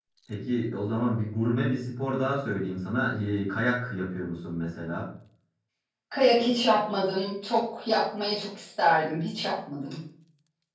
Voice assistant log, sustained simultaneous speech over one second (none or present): none